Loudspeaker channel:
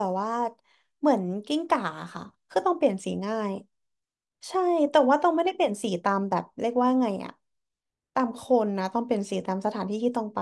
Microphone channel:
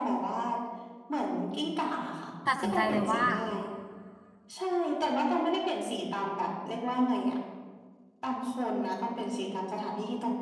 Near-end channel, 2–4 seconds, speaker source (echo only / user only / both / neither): both